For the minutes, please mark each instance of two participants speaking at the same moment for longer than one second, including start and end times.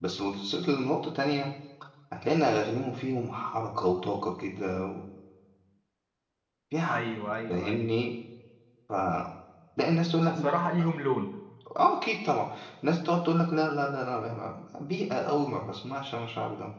none

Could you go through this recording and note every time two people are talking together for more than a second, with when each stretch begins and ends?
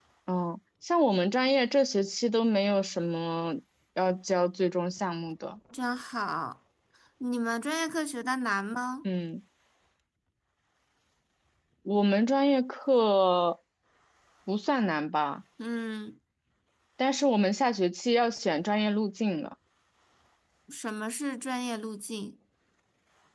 none

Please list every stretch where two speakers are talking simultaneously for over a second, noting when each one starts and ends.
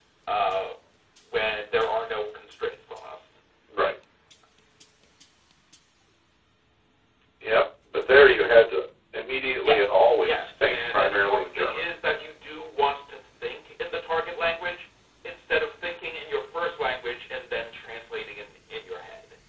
9.6-11.8

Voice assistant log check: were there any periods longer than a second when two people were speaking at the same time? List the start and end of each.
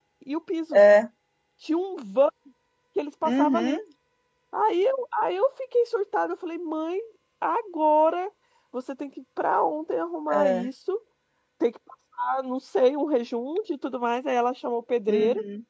none

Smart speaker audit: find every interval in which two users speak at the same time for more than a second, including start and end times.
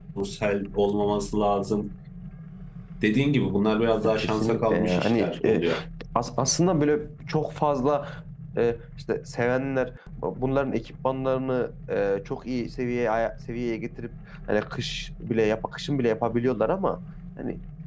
4.0-5.6

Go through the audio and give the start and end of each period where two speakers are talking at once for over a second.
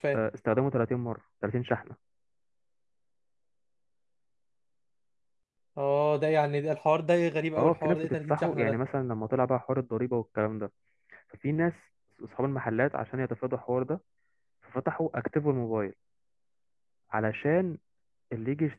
7.6-8.8

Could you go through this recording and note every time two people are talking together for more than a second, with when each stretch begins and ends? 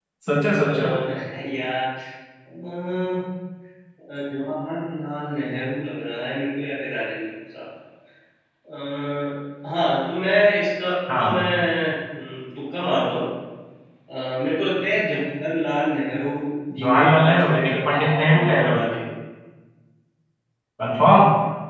16.8-18.8

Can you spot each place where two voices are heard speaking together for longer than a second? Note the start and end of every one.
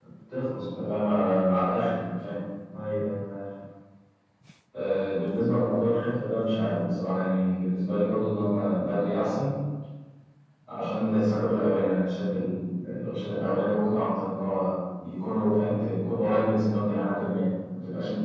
none

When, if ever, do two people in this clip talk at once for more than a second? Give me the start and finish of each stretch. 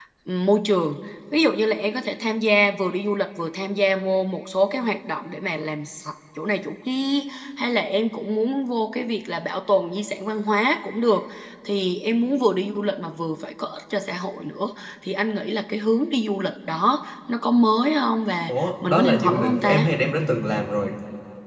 18.5-19.8

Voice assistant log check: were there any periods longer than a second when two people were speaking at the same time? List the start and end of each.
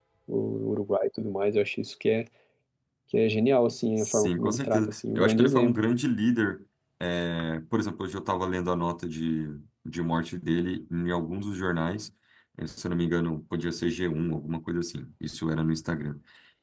4.0-5.8

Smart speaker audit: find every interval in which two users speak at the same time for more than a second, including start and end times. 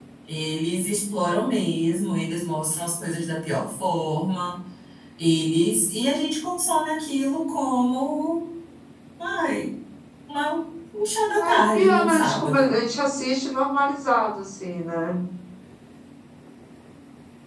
11.4-12.8

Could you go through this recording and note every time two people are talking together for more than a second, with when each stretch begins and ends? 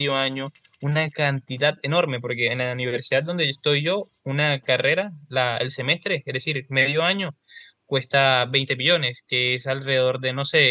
none

